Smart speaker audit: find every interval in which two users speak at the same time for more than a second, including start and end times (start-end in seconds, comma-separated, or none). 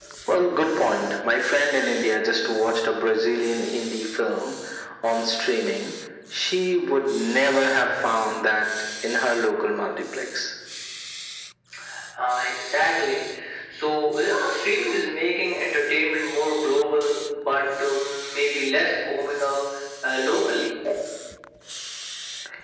none